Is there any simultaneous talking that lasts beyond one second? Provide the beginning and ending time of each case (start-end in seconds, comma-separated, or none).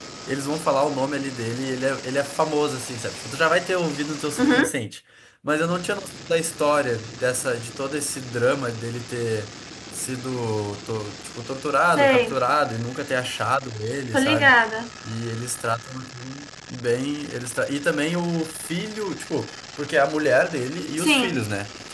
none